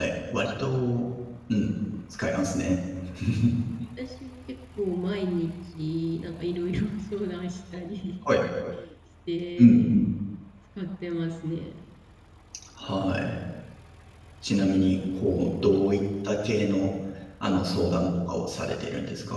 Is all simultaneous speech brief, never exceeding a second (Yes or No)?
Yes